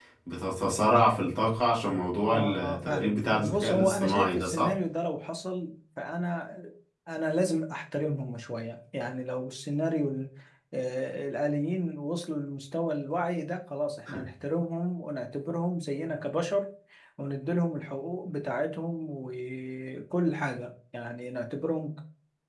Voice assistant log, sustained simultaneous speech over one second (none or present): present